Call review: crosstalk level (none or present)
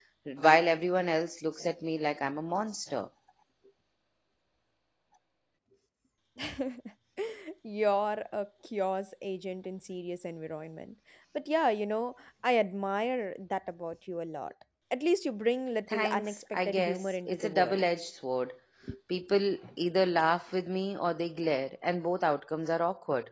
present